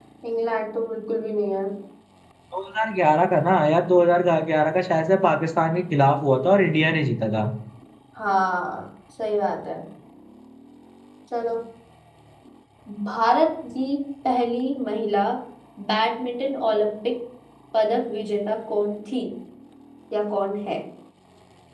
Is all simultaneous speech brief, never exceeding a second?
Yes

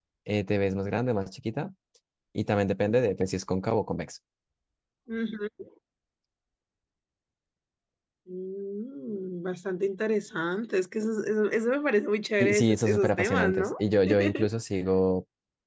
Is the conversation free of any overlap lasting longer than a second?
No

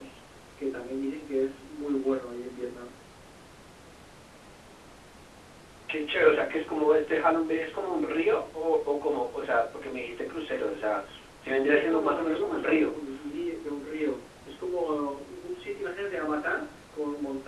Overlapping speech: Yes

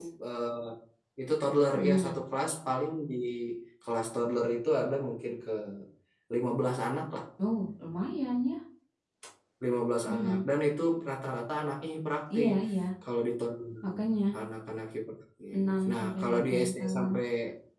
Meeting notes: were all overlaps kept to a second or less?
No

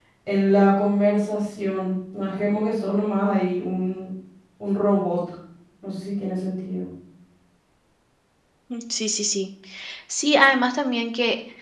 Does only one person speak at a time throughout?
Yes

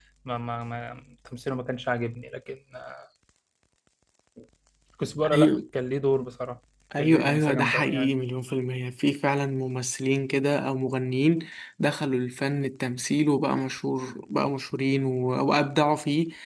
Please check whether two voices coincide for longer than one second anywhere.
Yes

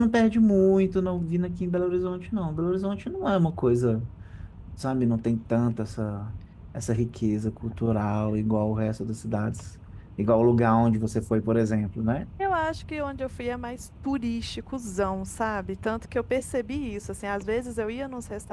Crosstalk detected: No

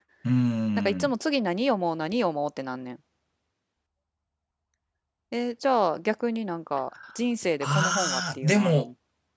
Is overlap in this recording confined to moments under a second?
No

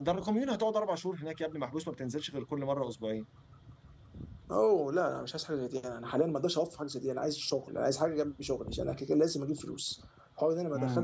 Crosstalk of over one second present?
No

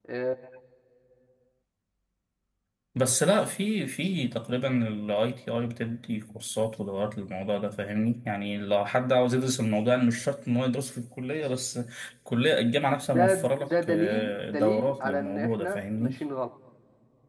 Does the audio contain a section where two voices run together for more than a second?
Yes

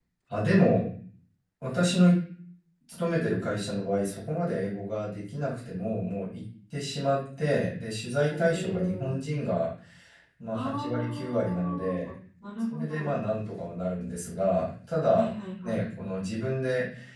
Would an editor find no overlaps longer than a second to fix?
No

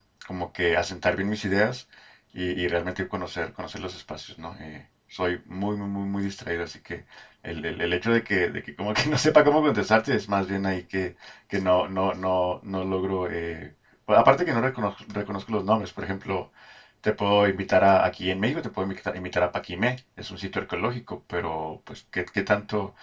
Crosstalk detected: No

